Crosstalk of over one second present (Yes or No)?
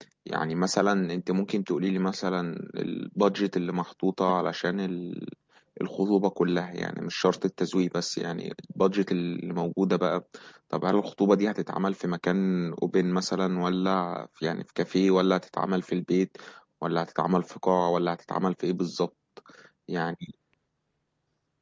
No